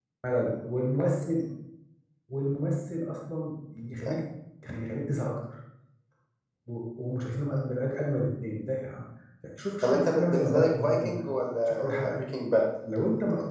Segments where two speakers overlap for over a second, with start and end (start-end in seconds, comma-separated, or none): 9.8-11.1